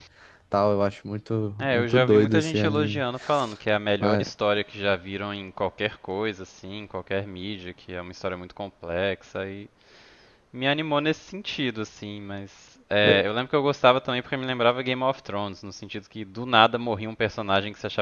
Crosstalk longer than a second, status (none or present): present